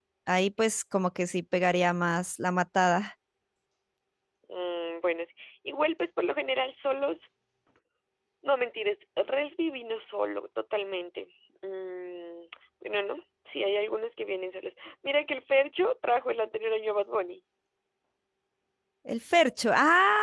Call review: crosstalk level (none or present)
none